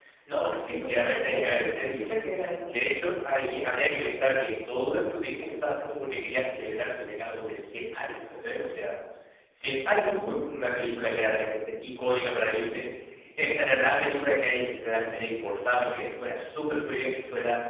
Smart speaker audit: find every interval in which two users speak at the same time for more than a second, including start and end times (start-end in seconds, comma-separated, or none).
0.5-2.2